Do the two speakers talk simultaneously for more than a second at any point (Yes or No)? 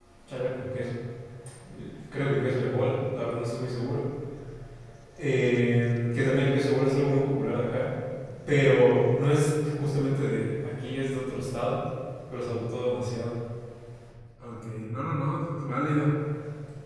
No